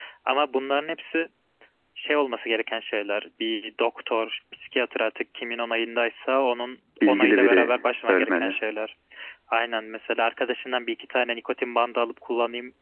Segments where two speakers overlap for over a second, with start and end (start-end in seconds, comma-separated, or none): 7.1-8.6